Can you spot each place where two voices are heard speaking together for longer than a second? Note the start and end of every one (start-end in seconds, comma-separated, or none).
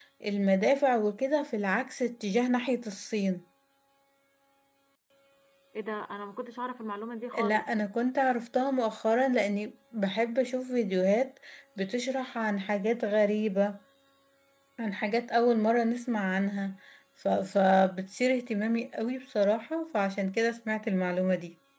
none